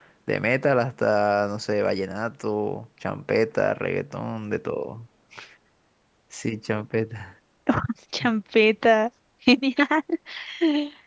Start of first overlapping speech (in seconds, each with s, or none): none